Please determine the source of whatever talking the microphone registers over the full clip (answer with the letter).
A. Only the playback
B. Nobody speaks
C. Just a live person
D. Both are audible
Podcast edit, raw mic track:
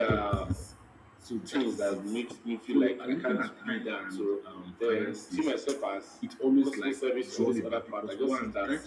D